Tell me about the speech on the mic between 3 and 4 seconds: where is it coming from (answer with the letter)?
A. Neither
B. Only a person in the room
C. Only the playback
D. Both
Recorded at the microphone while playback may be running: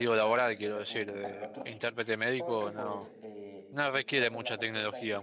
D